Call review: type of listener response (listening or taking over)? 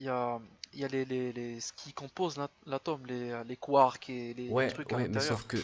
taking over